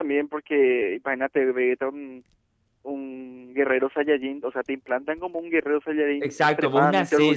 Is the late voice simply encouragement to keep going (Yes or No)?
No